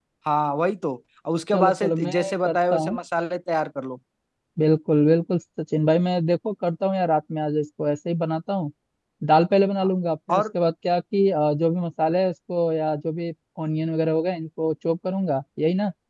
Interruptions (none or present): present